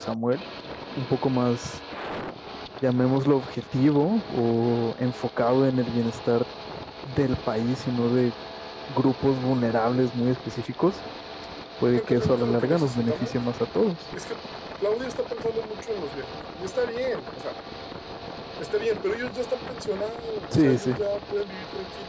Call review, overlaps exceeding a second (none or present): present